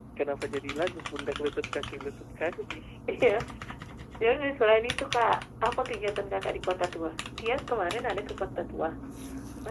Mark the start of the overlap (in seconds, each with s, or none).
none